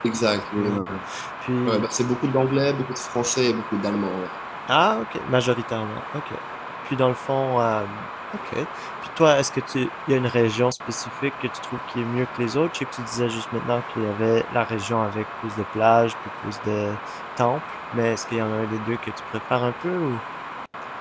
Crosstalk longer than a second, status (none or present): none